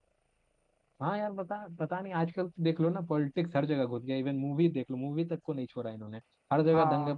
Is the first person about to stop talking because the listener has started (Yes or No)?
No